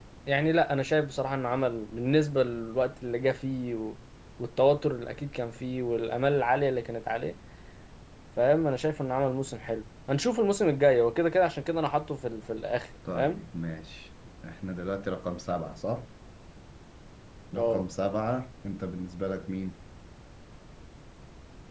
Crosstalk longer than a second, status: none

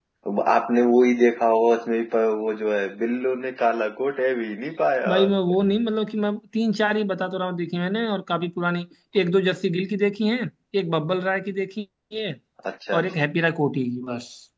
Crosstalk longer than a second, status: none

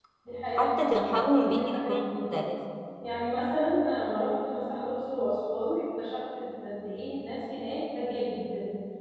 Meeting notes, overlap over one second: present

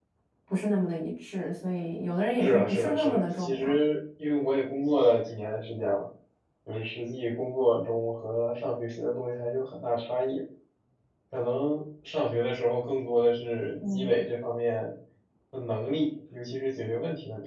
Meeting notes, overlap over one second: present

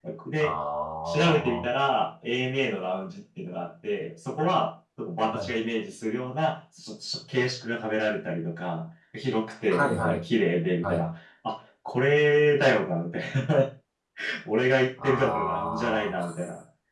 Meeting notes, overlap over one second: present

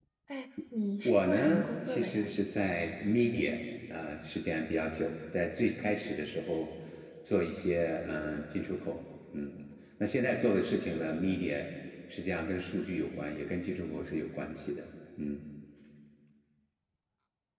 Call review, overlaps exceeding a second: present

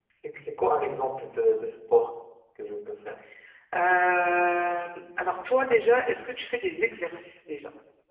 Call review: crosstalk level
none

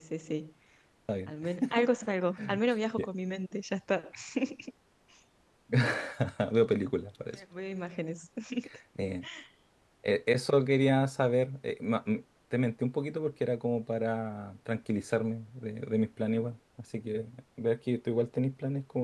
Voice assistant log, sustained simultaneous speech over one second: none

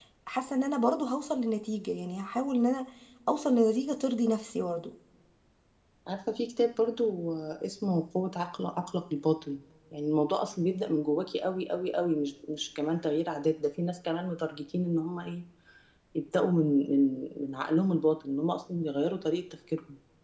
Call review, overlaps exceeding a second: none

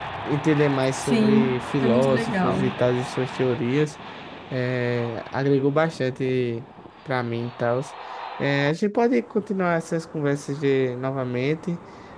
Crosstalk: present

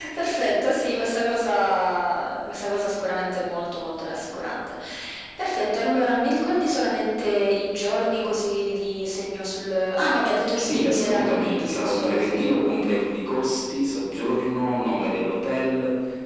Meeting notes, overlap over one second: present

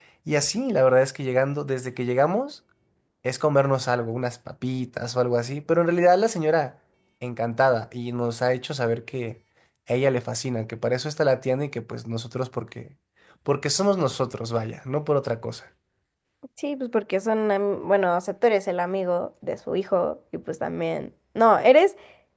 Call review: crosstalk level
none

